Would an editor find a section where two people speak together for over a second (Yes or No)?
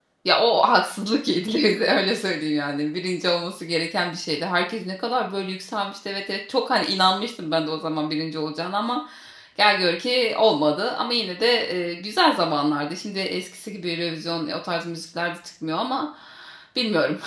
No